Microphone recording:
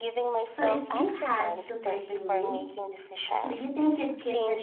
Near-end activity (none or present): present